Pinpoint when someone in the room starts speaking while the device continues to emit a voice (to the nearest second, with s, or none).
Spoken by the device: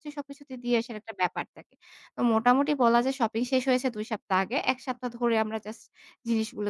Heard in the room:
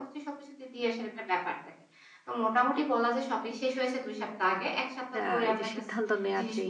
5 s